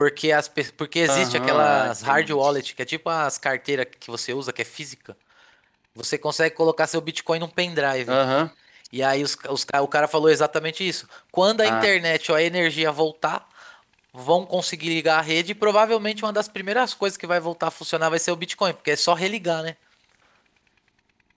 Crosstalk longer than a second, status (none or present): present